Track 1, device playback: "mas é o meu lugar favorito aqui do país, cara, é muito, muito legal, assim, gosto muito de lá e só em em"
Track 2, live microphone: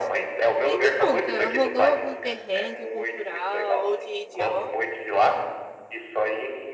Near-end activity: present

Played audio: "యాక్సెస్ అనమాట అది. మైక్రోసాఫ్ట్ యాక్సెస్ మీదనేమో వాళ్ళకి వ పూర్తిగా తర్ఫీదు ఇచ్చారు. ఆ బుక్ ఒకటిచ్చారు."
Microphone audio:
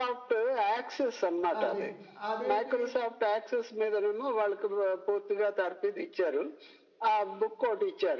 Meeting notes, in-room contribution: present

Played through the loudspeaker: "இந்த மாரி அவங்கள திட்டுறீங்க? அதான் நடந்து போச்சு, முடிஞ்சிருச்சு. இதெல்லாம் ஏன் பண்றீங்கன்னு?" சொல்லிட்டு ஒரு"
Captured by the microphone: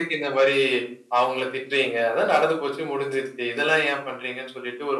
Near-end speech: none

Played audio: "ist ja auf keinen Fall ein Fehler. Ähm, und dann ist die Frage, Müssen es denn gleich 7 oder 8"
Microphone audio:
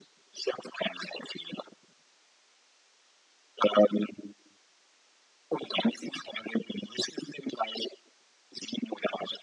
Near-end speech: none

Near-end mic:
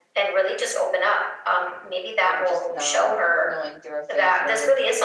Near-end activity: present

